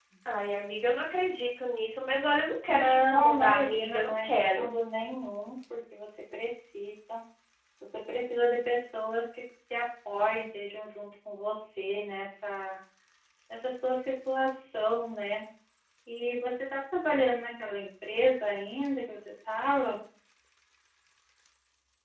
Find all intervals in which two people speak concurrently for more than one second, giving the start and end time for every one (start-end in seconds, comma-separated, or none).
2.7-4.7